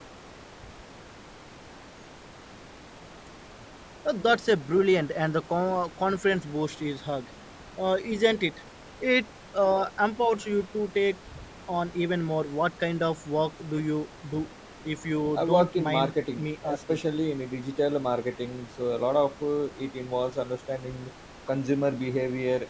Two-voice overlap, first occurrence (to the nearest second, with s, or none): 15 s